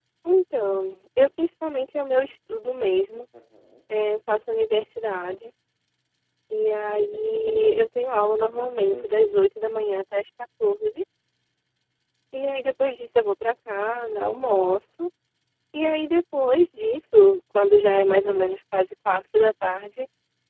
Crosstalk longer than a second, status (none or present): none